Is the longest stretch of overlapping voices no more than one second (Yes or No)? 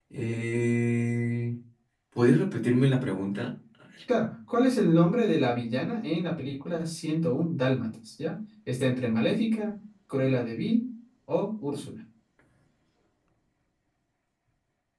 Yes